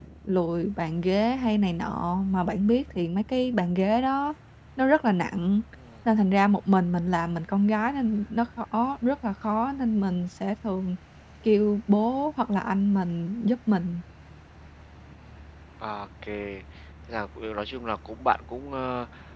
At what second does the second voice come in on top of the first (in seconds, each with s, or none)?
none